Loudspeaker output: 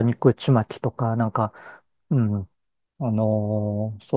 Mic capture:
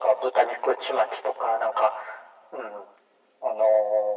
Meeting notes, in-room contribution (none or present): none